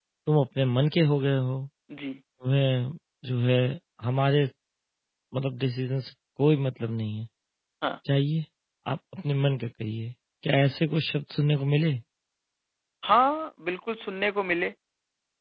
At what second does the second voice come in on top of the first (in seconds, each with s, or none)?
none